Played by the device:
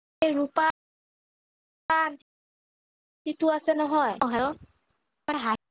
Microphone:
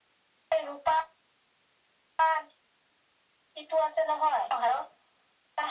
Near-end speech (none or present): none